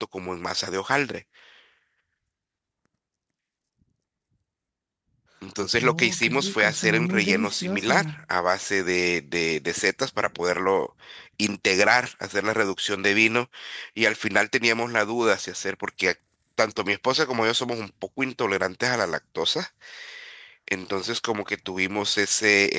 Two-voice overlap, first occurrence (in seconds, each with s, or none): 5.8 s